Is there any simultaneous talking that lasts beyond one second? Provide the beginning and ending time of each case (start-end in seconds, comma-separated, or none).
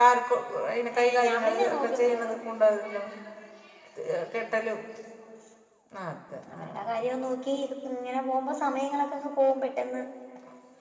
1.0-2.3